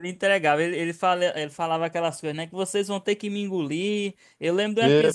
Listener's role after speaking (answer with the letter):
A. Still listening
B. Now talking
A